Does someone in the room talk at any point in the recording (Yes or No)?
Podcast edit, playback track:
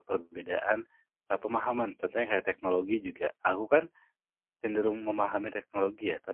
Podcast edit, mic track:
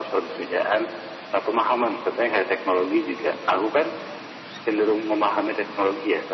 No